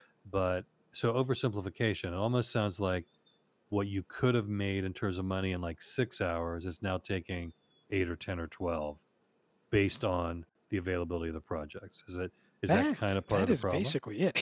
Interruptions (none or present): present